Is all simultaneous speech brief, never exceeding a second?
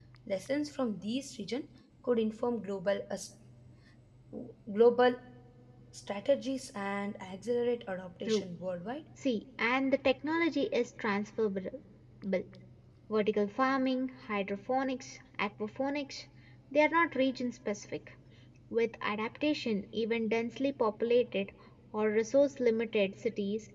Yes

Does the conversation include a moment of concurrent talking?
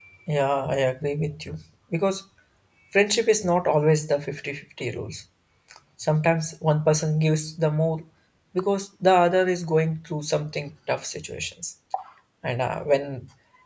No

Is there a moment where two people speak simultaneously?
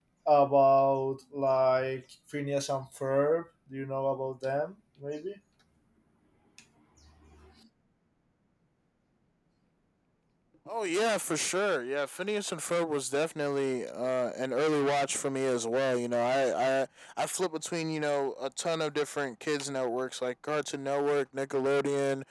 No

